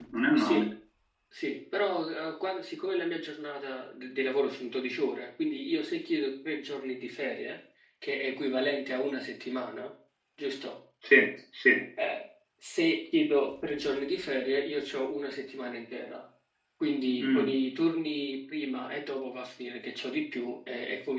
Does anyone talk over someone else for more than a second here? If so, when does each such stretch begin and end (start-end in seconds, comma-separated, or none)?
none